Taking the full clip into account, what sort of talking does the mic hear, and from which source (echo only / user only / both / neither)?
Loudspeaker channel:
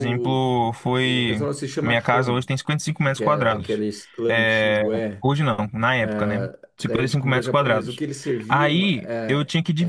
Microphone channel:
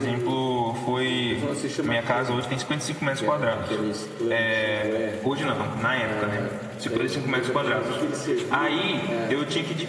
echo only